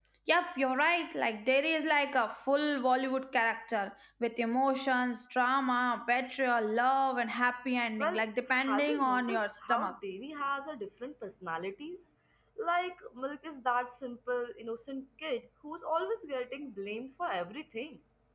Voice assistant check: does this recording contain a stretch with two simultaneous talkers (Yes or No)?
Yes